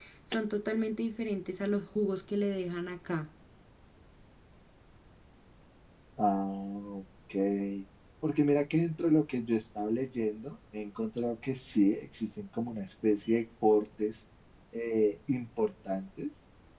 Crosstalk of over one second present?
No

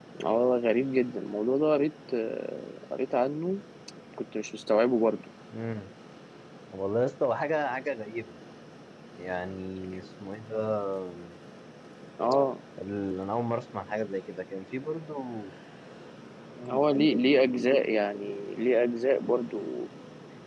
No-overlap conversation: Yes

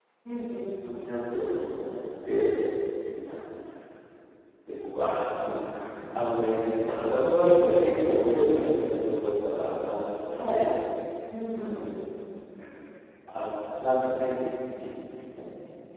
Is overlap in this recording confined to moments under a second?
Yes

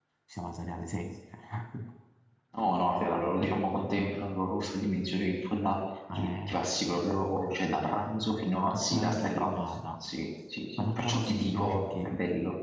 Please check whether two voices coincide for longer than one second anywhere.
Yes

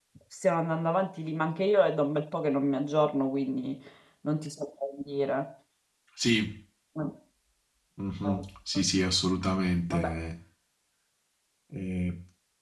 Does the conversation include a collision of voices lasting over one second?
No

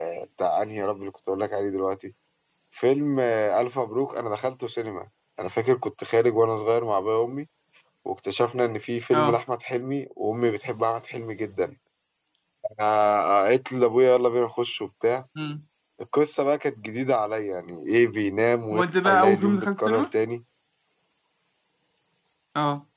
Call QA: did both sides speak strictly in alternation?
No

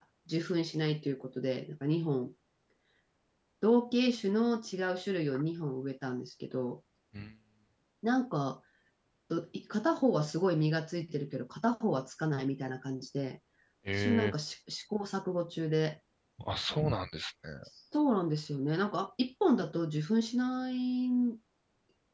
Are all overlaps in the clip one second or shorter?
Yes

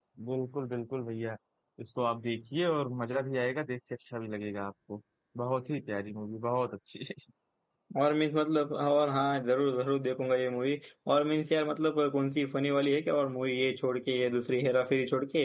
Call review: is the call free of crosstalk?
Yes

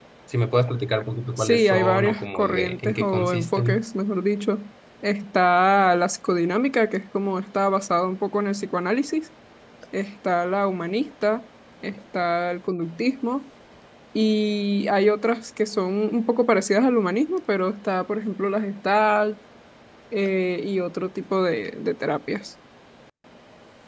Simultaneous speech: Yes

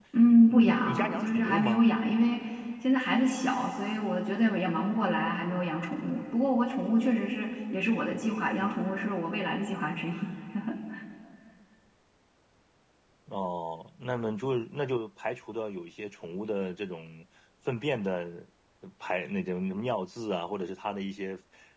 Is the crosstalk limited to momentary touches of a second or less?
No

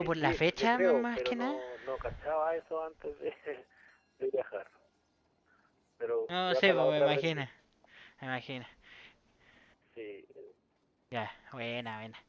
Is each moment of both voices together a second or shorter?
No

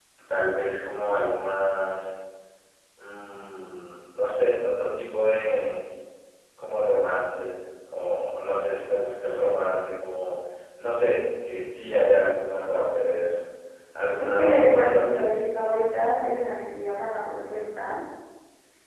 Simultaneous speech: Yes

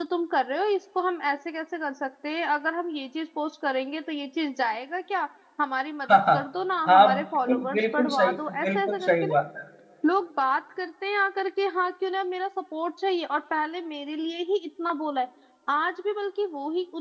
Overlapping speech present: Yes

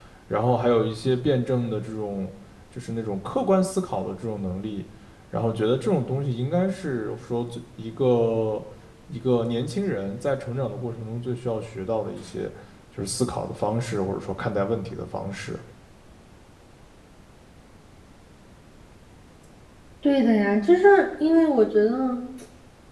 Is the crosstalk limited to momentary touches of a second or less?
Yes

